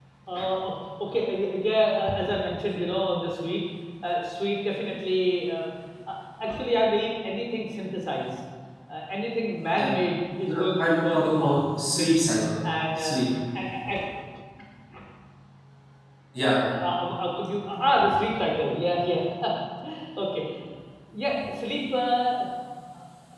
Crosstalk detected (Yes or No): Yes